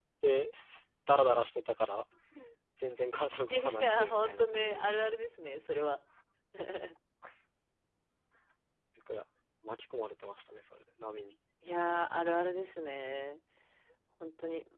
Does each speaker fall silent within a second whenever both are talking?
No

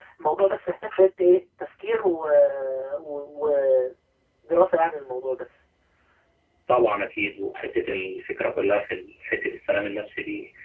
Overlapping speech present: No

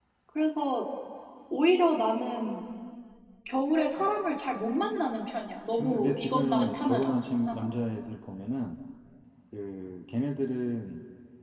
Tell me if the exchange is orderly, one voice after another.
No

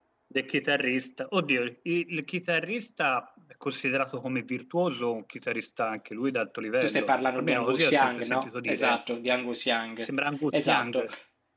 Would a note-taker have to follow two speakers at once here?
Yes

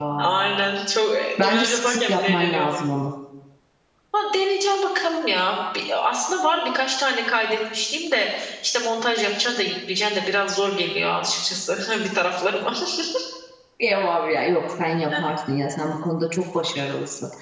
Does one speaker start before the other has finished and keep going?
Yes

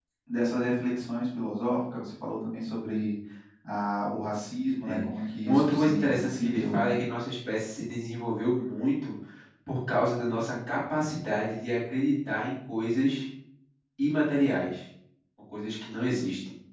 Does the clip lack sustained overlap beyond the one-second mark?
No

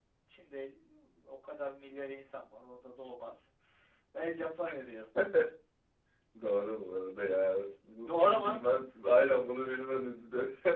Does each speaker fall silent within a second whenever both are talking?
Yes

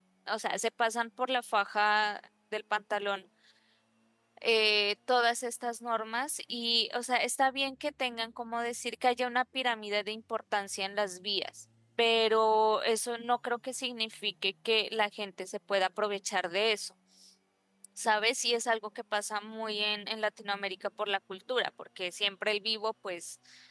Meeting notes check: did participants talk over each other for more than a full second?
No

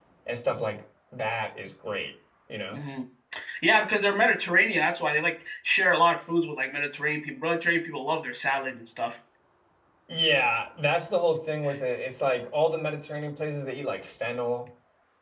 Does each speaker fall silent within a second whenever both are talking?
Yes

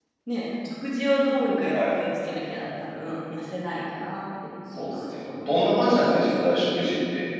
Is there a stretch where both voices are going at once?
Yes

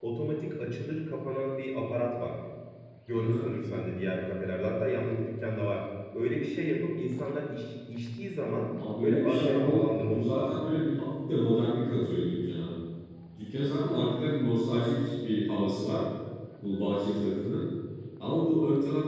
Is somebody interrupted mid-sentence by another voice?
Yes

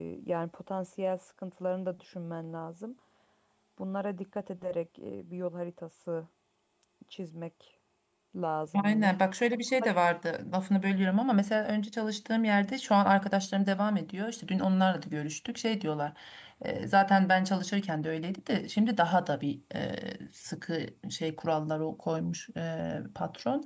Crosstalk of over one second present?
No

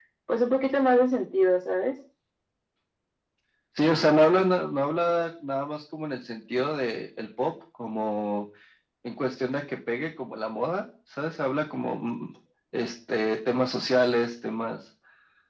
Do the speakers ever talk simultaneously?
No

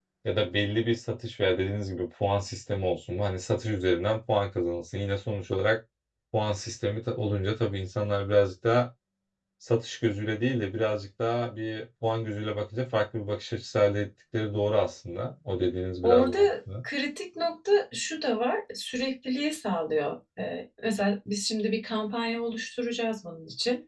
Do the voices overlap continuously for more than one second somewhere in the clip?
No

